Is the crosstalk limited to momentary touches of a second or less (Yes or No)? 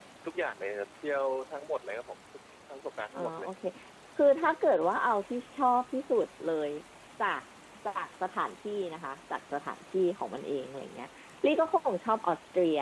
Yes